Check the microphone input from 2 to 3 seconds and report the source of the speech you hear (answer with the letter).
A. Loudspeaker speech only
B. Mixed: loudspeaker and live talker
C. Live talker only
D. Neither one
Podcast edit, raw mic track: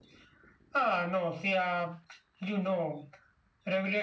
A